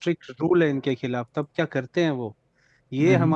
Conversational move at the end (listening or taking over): listening